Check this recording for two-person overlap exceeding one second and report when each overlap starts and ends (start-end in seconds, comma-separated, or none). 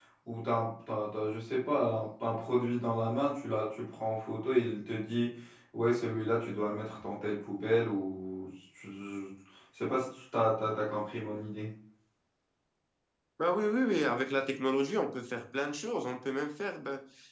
none